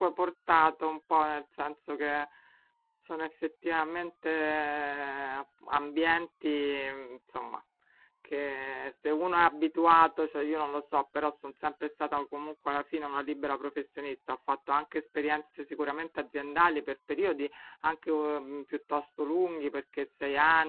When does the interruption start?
none

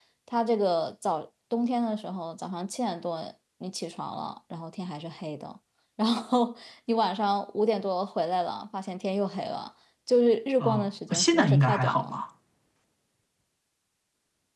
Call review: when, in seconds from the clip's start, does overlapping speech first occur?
10.6 s

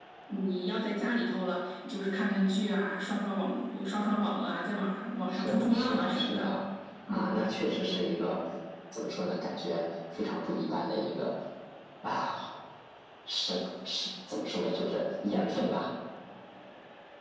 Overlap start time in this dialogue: 5.3 s

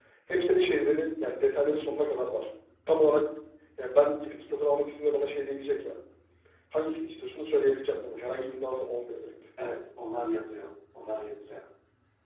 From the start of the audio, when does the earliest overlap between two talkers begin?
none

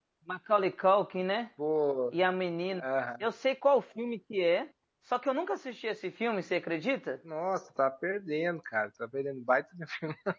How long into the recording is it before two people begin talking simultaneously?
none

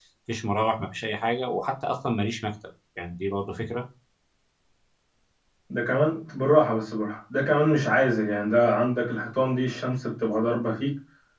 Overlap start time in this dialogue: none

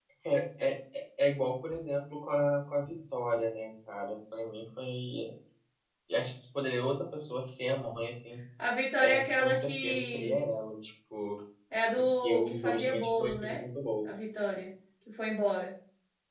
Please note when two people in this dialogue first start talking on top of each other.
9.0 s

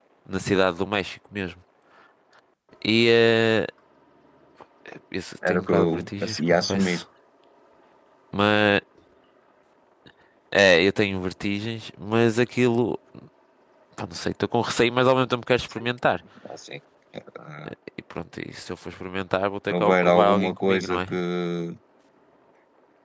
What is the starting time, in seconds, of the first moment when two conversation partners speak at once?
5.5 s

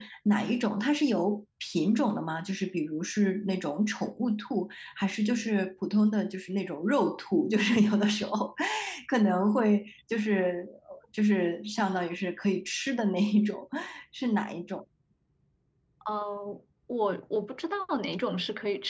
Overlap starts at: none

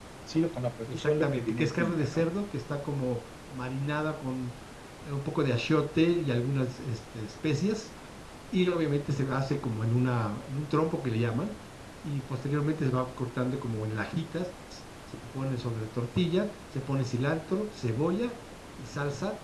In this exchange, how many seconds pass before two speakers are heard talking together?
0.9 s

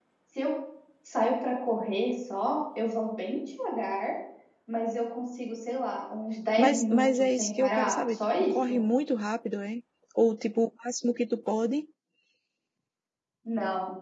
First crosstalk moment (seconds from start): 6.6 s

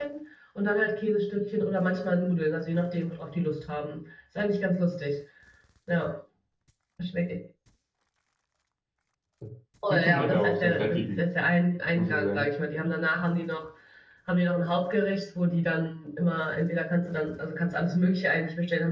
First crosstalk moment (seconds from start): 9.9 s

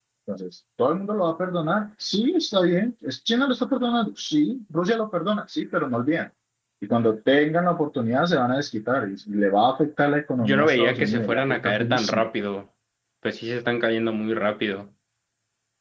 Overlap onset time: 10.4 s

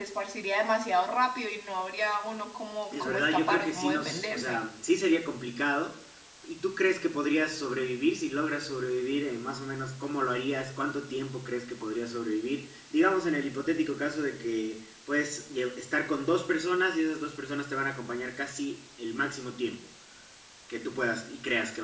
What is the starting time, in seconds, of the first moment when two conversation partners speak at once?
2.9 s

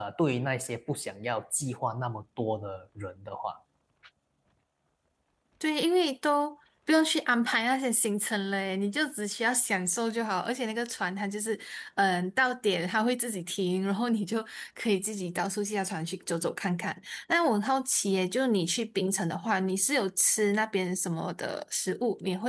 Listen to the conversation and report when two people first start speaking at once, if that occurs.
none

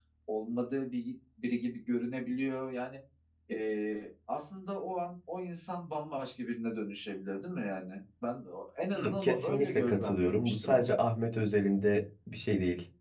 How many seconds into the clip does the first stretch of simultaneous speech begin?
8.9 s

